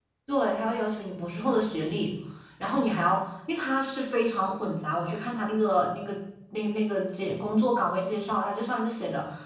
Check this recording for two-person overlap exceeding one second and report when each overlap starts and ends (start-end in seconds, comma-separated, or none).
none